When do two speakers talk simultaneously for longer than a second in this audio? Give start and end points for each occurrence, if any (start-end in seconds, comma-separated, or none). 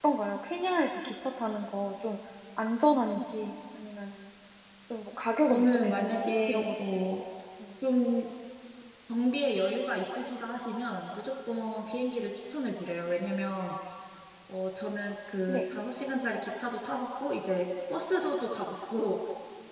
5.5-7.0